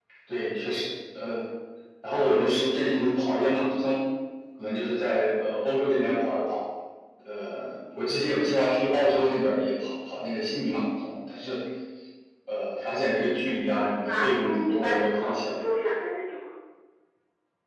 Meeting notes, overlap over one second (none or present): present